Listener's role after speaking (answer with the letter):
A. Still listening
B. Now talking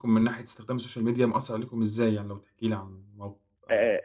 B